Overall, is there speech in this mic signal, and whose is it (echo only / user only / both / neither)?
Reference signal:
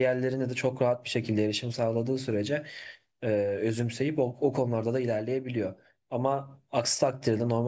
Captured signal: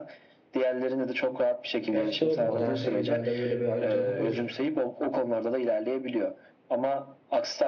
both